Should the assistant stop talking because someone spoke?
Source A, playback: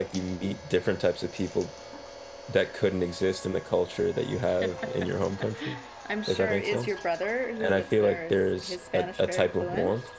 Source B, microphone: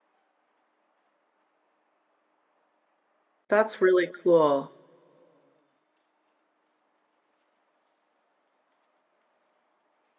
Yes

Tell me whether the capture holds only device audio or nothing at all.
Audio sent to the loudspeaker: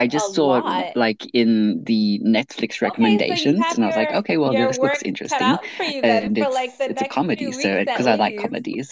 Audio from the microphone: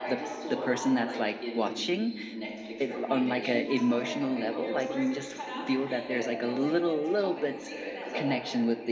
No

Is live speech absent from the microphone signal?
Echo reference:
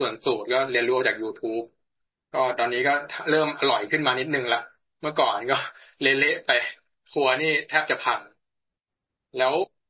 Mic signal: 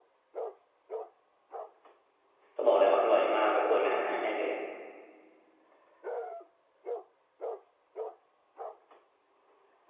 No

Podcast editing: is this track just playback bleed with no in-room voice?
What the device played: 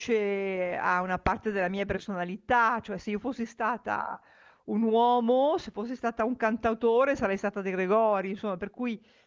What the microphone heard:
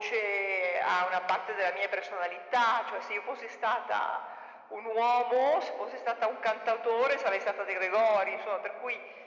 Yes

